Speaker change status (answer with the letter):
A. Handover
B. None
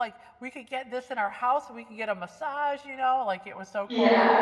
B